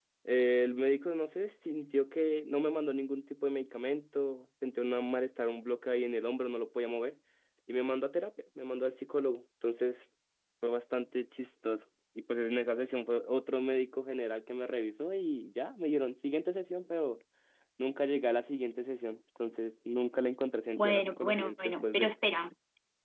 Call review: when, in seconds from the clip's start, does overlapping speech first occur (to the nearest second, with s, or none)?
21 s